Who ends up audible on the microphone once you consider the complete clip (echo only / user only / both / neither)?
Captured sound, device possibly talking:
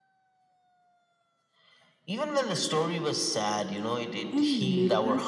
both